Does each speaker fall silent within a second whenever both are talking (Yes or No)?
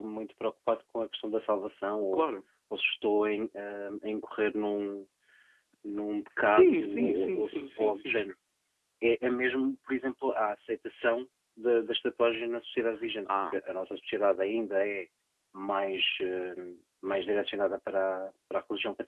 No